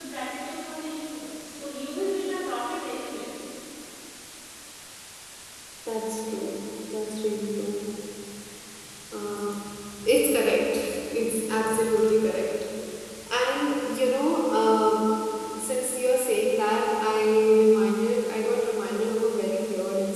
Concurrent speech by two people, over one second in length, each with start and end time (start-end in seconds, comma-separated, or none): none